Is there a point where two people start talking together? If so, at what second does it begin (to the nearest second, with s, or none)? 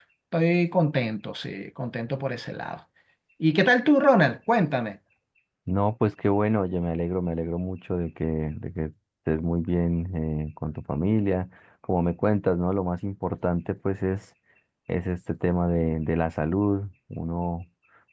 none